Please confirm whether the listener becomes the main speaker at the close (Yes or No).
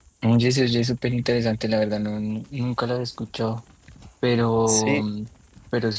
No